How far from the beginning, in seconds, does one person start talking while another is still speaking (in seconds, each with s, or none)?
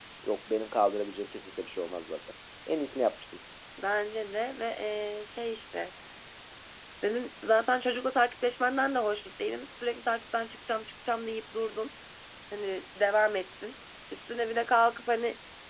none